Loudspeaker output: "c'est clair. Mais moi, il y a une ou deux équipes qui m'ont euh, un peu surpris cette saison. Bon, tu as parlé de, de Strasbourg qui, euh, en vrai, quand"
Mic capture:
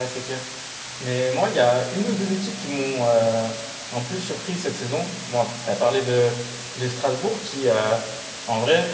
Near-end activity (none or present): none